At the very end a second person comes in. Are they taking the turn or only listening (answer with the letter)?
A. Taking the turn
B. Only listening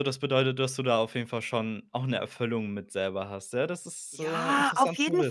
A